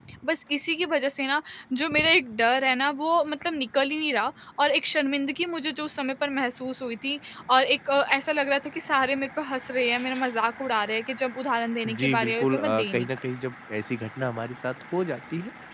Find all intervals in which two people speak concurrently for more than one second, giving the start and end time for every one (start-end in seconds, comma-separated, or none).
11.9-13.1